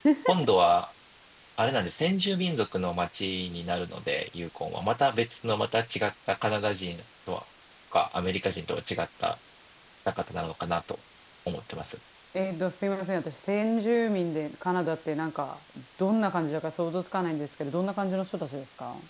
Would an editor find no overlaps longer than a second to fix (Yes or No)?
Yes